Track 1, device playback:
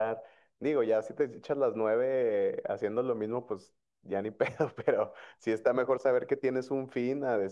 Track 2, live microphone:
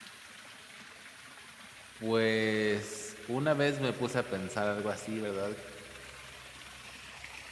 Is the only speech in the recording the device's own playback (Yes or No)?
No